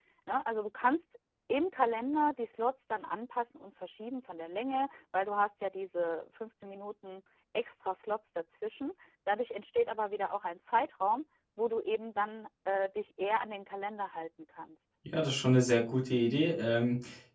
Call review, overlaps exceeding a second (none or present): none